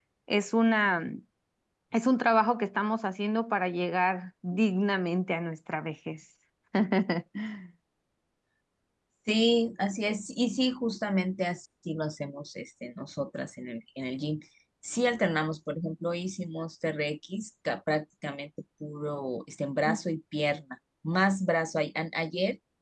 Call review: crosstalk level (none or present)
none